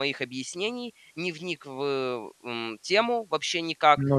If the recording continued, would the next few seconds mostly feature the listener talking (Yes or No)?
No